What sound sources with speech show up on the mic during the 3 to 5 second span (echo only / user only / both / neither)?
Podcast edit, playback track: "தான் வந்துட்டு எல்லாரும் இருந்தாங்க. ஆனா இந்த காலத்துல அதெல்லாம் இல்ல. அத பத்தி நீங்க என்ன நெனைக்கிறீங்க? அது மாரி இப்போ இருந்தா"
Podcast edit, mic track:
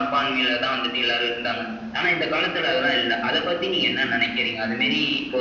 echo only